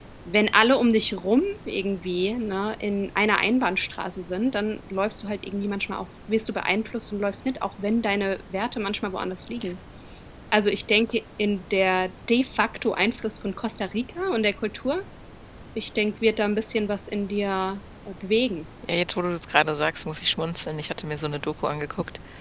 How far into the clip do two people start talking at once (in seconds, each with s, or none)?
none